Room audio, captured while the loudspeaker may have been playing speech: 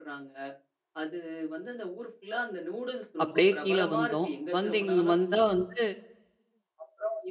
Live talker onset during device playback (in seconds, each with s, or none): 3.2 s